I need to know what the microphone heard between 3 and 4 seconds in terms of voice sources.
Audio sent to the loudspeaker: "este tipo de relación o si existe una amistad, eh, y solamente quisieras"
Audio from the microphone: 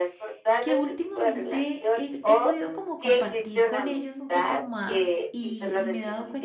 both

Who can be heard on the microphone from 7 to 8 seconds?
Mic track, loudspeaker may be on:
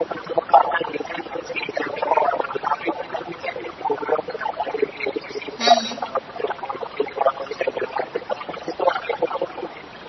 echo only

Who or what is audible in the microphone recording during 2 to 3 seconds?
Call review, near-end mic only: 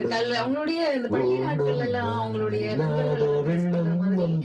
echo only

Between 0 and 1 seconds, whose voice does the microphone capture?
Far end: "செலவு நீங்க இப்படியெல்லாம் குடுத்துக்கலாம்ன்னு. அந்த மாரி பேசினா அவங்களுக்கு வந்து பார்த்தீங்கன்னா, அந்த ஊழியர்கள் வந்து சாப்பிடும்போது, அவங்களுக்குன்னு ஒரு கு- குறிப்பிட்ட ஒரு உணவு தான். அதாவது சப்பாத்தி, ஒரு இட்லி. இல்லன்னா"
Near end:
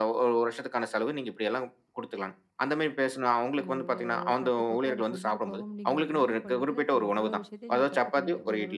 echo only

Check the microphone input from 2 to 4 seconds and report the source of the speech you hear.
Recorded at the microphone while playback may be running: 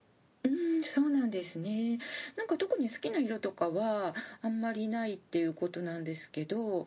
echo only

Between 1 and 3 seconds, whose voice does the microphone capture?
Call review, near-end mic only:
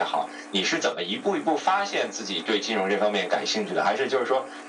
echo only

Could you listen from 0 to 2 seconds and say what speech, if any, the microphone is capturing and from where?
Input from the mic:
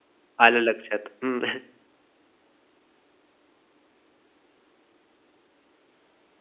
user only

